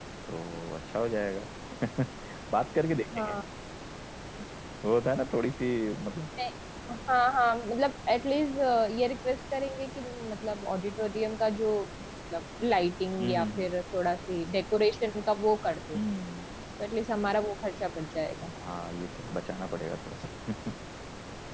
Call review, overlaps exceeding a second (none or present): none